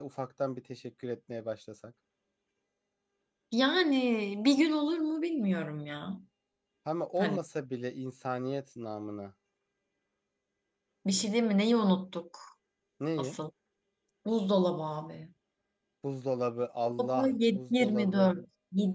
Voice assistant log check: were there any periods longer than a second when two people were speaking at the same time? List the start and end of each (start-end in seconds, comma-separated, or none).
17.0-18.3